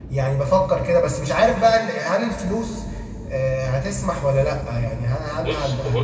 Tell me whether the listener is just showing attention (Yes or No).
No